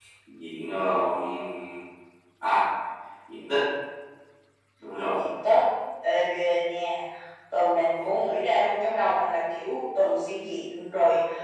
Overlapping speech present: No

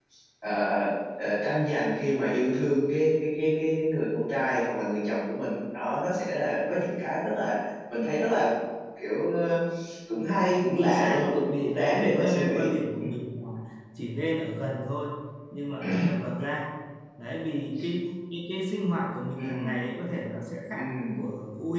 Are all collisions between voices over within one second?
No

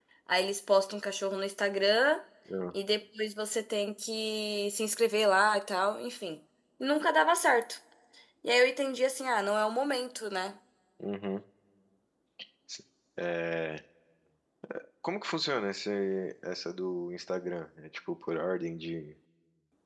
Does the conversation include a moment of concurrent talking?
No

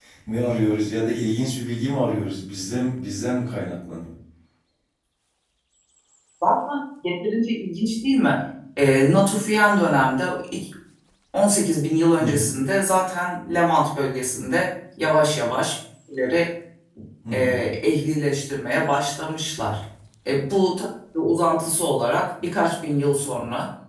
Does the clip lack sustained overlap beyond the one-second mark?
Yes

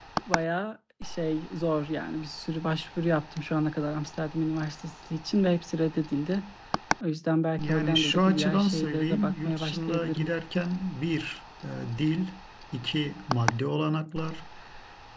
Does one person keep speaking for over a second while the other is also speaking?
Yes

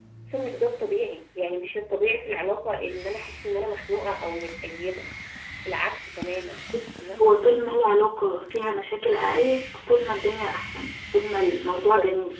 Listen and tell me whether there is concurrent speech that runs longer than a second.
No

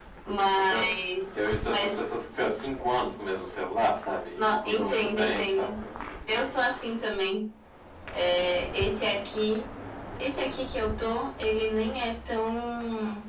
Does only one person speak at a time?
No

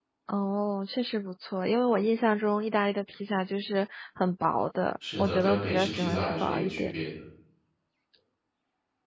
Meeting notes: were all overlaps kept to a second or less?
No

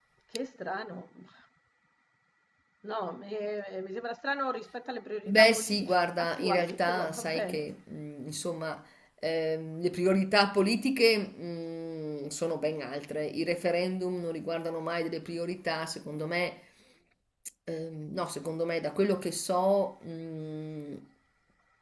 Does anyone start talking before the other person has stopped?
Yes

